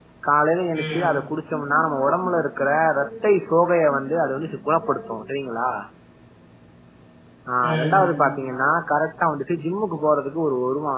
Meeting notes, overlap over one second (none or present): present